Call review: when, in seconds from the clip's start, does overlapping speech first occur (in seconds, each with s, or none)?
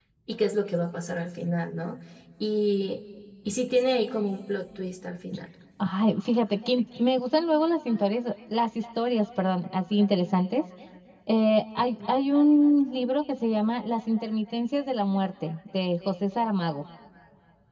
none